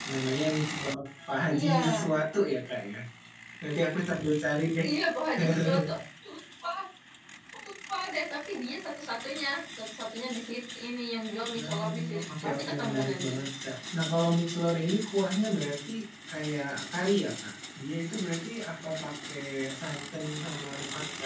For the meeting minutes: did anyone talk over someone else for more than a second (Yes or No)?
Yes